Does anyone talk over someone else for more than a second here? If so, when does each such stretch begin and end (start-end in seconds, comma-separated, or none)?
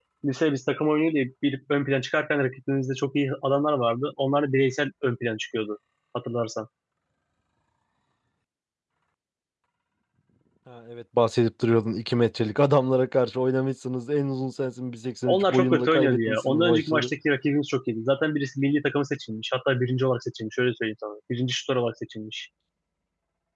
15.3-17.1